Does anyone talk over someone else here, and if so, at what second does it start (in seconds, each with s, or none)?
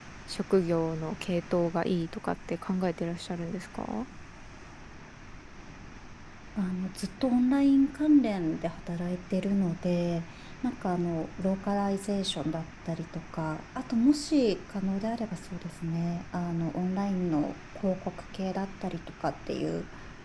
none